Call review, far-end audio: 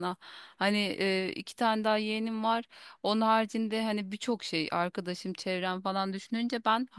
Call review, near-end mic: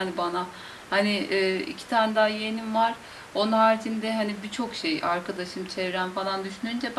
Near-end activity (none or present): none